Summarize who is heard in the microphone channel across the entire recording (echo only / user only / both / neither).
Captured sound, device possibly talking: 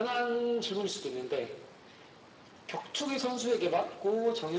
echo only